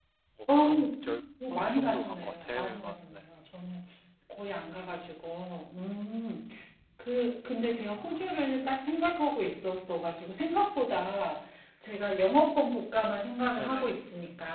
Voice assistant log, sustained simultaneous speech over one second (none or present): present